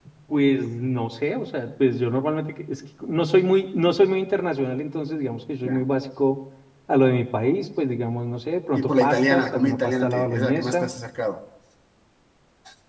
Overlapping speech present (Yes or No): Yes